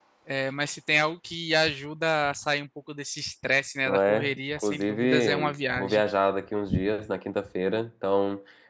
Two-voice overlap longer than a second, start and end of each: 3.9-6.0

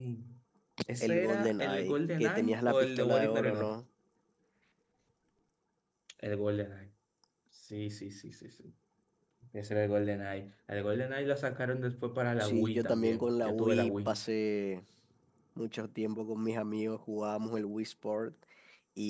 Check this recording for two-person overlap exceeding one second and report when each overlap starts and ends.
1.0-3.7, 12.4-14.2

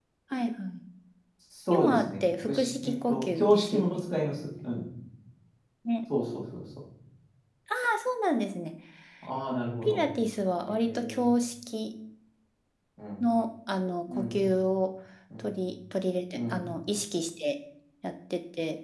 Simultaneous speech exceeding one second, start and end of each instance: 1.7-4.0

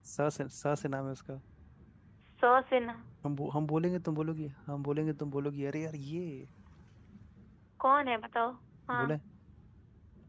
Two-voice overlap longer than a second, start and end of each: none

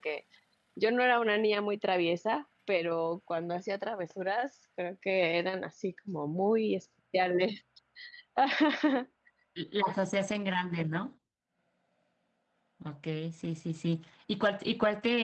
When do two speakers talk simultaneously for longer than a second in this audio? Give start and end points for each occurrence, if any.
none

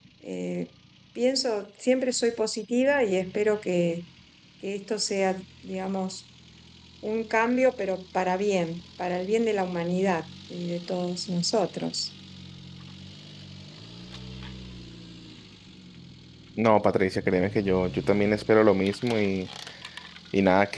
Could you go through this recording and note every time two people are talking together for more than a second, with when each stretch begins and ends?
none

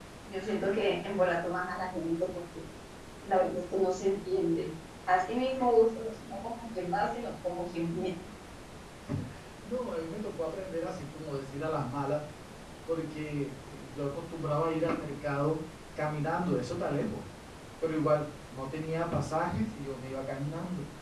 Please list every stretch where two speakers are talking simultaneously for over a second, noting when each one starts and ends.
none

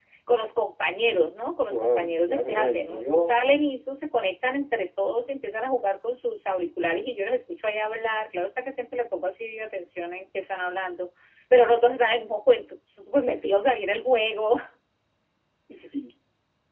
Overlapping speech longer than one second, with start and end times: 1.7-3.4

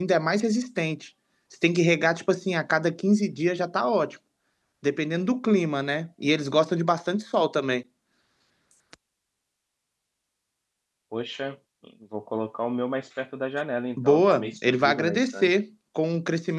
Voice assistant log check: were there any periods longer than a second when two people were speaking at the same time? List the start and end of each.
14.0-15.5

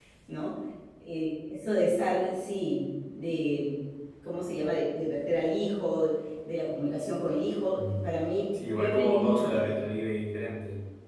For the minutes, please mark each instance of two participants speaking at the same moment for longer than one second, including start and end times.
8.5-9.8

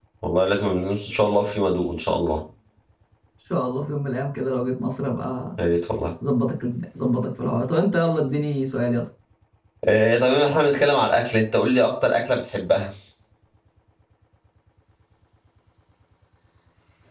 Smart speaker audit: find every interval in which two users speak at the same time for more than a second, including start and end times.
none

